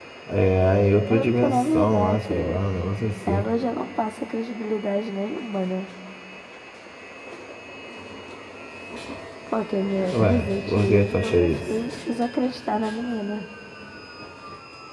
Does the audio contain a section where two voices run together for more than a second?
Yes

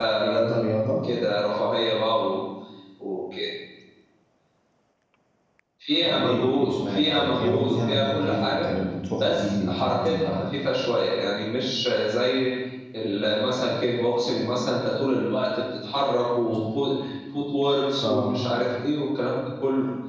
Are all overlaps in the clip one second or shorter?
No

